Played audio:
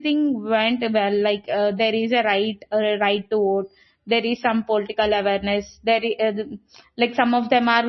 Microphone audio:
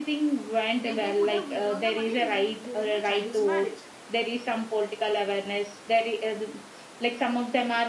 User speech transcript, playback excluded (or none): they they could have withdrawn the money during during the child's marriage